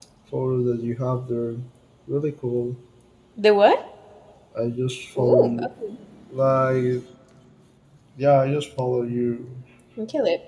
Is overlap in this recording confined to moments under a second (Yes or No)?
Yes